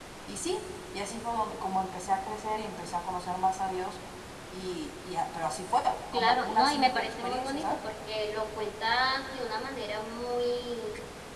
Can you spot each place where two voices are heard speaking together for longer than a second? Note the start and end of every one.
6.1-7.8

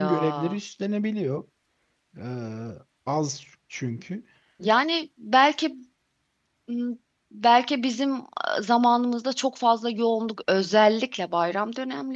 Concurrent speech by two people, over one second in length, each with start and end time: none

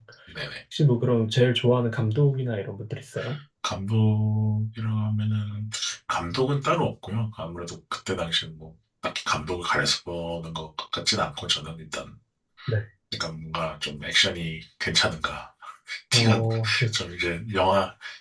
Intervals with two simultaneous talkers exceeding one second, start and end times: none

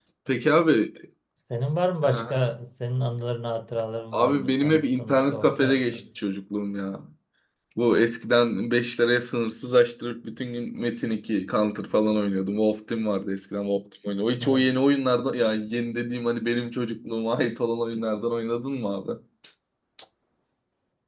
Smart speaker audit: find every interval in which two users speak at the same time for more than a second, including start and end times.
4.1-6.0

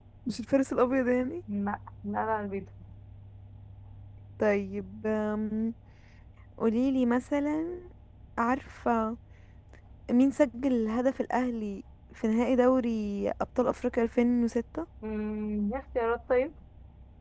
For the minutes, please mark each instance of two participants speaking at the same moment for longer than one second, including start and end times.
none

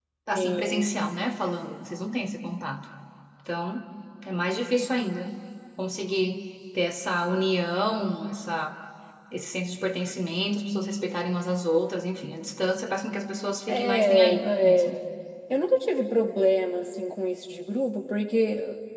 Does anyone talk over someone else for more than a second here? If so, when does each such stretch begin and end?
13.7-15.0

